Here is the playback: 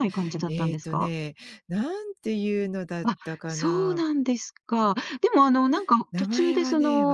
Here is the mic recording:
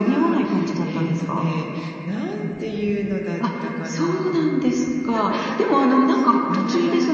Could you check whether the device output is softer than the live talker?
No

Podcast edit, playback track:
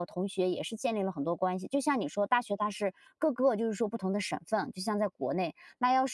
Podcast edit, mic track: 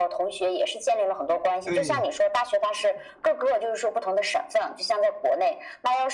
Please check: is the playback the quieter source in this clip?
No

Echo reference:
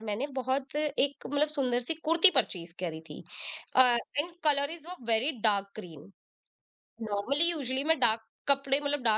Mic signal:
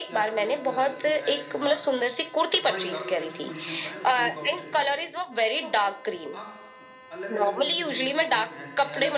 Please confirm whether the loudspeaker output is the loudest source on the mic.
Yes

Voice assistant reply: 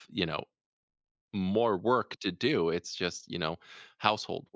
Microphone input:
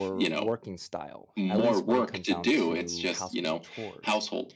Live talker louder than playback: No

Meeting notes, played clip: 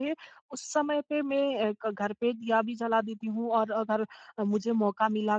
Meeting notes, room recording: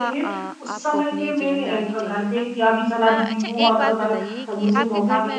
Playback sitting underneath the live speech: No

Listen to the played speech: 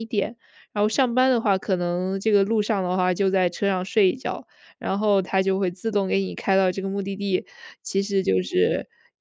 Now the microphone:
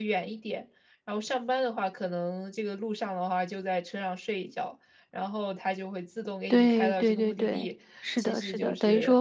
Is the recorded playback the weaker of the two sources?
Yes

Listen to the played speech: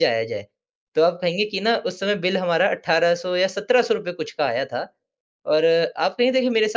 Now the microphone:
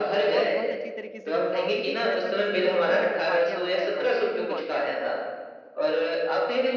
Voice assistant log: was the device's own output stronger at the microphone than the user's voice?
Yes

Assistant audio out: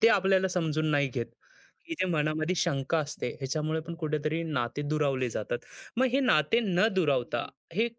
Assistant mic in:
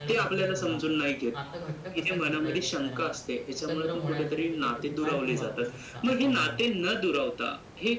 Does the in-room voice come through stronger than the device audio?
No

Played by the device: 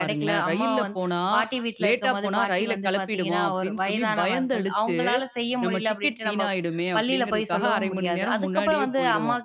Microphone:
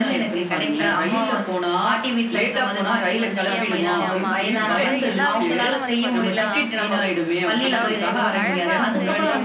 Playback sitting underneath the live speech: No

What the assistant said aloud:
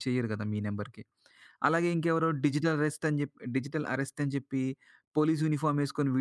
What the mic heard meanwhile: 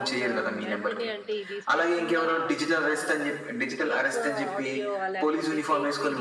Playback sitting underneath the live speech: No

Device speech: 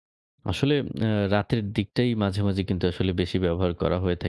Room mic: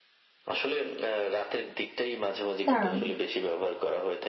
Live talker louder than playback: Yes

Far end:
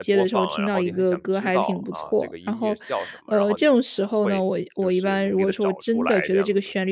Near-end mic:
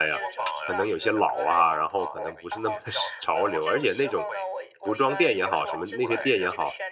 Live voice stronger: Yes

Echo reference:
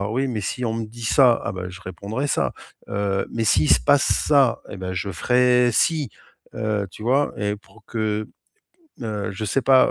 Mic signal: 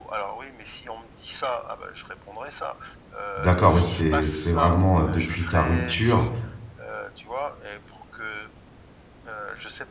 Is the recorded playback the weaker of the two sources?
Yes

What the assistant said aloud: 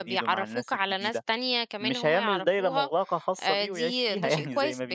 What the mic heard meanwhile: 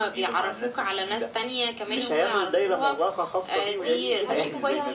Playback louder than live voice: Yes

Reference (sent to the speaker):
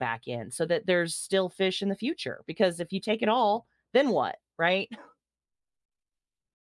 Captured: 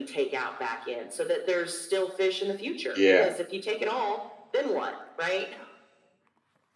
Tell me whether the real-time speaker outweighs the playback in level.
Yes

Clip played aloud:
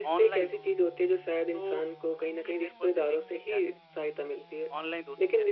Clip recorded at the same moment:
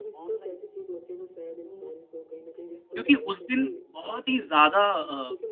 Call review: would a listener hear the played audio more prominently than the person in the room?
No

